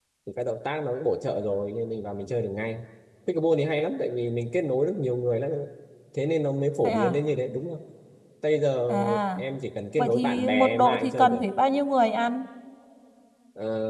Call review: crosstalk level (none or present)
present